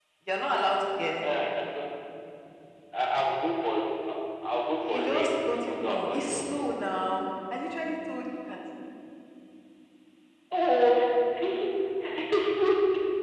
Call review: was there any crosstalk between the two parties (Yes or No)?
Yes